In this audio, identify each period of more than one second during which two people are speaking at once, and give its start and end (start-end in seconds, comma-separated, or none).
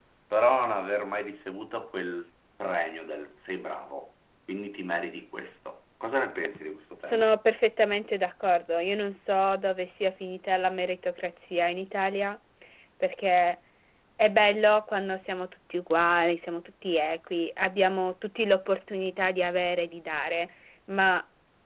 none